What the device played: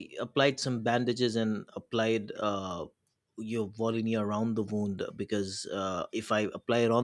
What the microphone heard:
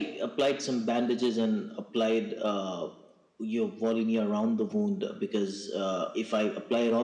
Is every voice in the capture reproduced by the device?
Yes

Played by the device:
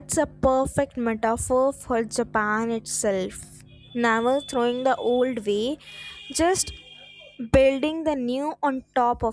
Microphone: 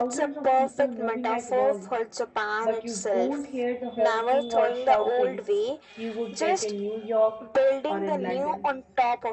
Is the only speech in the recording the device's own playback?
No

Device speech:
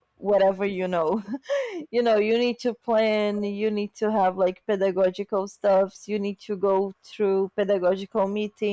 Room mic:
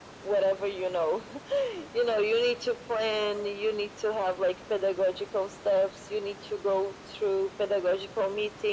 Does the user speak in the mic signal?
No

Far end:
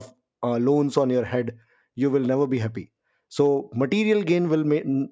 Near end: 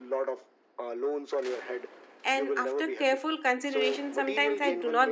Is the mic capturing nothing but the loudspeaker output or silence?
No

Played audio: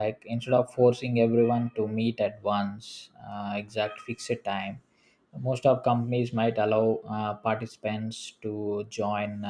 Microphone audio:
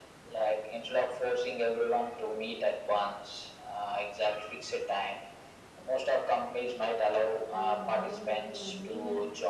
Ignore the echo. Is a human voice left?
Yes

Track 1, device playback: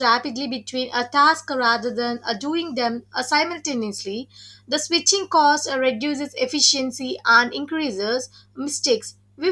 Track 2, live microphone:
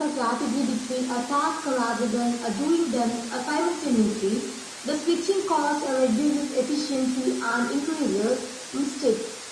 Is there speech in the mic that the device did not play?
No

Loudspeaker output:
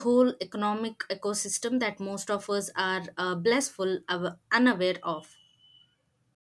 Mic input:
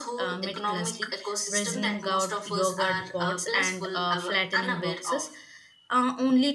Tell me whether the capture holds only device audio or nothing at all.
No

